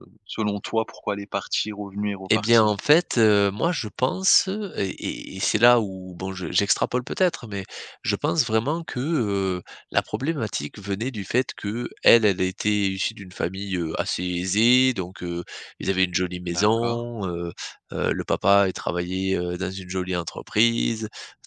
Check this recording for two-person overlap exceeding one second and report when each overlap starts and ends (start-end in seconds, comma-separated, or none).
none